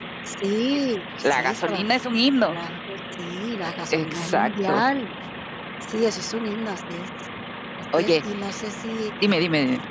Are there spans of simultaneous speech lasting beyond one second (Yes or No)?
Yes